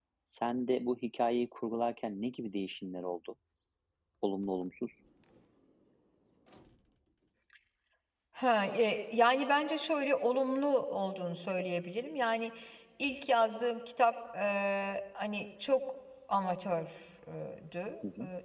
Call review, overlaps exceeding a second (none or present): none